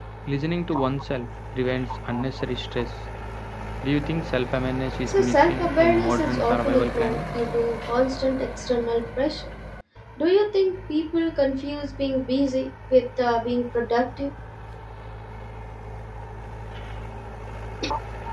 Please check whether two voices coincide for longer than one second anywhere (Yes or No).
Yes